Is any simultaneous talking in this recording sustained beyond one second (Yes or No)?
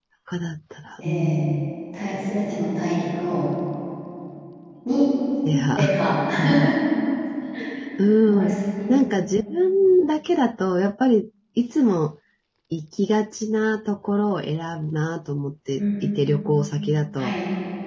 No